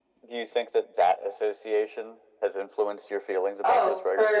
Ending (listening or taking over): taking over